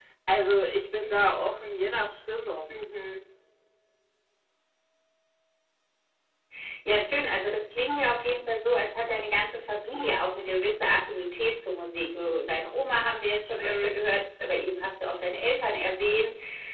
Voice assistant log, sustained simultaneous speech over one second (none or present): none